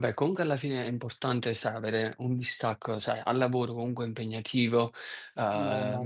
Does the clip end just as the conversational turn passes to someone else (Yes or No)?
No